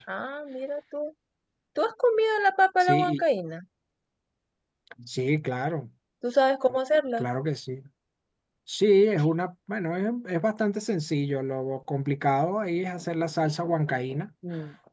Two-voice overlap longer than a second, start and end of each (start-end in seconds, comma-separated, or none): none